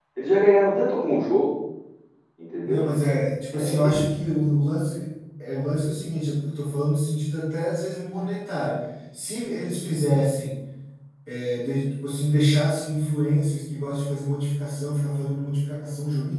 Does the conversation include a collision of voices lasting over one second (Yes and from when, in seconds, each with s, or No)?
No